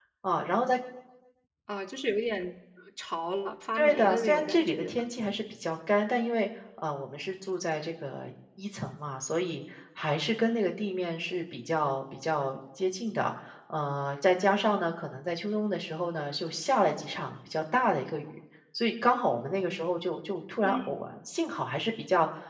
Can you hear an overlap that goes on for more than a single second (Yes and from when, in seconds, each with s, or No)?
Yes, from 3.8 s